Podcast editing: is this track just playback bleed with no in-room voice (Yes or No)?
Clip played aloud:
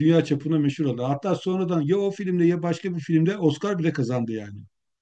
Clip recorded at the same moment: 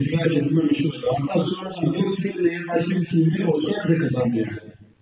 Yes